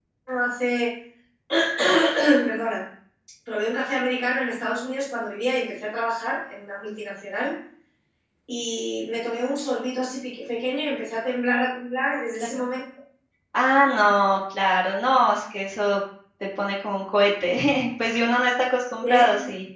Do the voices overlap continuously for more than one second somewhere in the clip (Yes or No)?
No